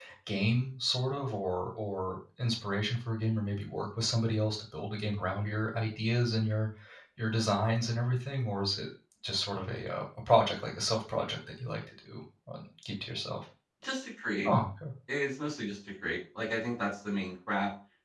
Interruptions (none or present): none